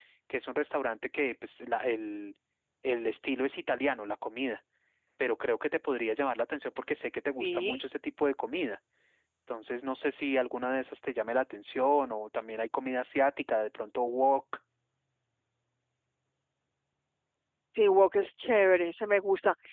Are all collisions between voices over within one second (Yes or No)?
Yes